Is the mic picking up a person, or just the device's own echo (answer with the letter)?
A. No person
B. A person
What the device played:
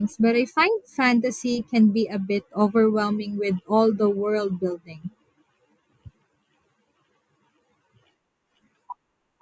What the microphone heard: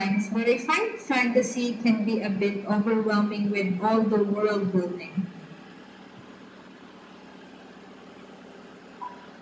A